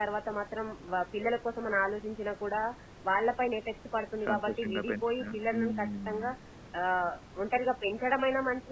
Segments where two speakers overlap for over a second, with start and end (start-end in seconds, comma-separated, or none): 4.2-6.3